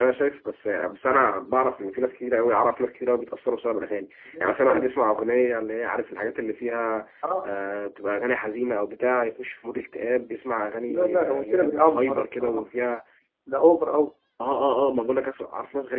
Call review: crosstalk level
present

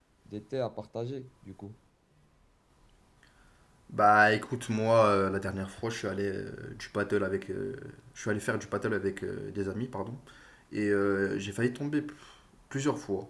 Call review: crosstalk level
none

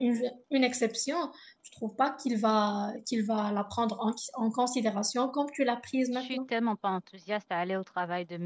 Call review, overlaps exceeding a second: none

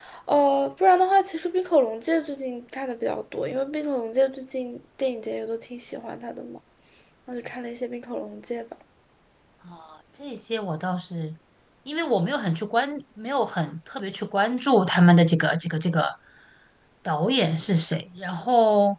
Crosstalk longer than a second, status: none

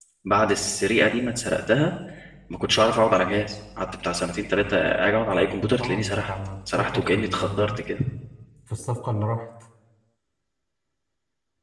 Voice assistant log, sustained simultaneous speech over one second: present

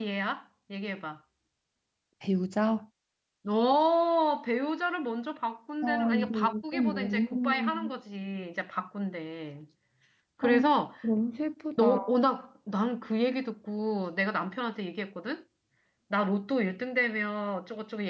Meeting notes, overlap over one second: present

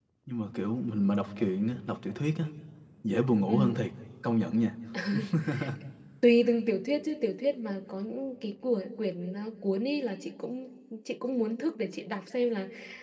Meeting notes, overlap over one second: none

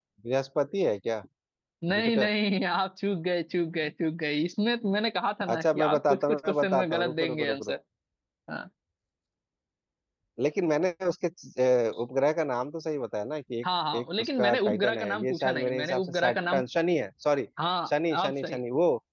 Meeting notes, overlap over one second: present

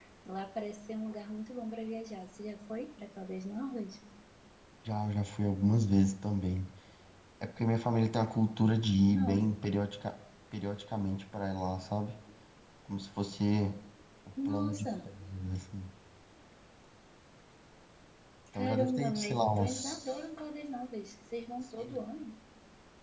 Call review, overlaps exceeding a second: present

